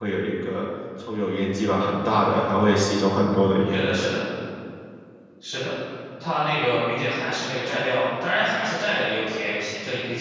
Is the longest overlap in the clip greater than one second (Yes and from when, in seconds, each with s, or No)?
No